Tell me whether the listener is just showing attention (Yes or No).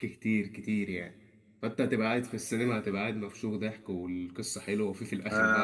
No